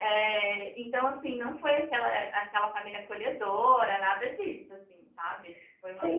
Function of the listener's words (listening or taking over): taking over